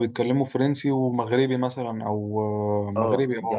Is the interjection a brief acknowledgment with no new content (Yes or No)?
No